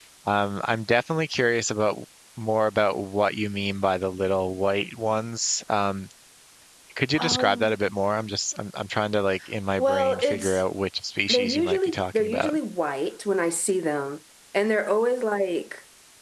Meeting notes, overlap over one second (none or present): present